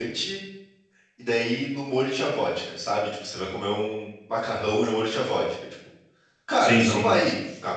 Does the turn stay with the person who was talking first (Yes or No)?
Yes